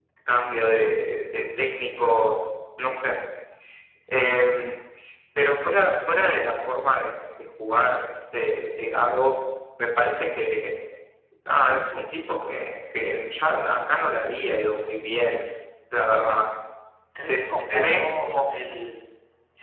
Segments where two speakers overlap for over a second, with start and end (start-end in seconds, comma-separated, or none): 17.2-18.4